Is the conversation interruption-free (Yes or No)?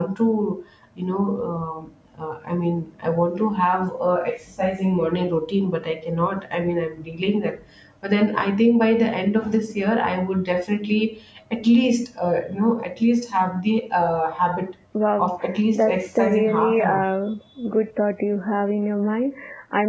No